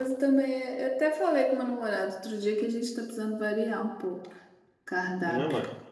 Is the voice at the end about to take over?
Yes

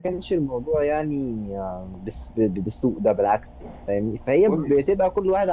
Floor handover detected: No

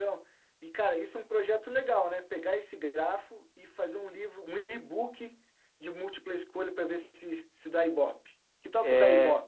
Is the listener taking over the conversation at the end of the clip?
Yes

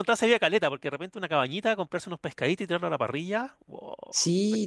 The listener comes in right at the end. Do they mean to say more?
Yes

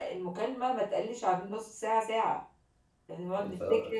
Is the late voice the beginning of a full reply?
No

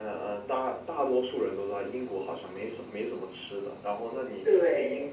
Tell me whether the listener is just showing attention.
Yes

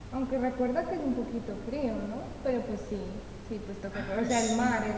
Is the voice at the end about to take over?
No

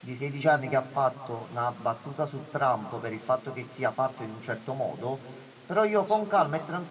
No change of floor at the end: Yes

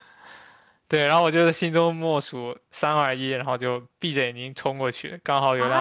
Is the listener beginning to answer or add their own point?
Yes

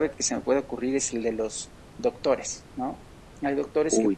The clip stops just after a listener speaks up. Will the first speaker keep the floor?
Yes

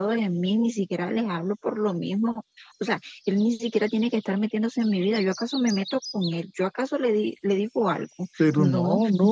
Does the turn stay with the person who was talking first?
No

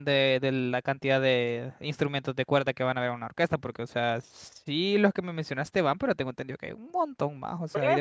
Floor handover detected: Yes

